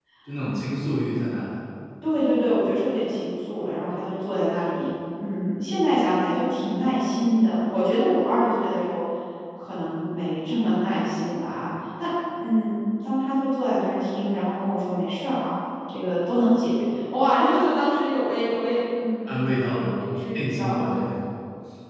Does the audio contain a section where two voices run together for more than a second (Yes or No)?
Yes